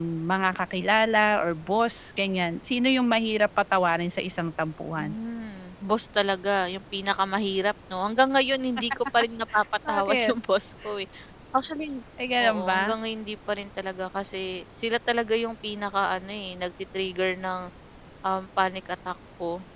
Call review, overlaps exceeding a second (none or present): none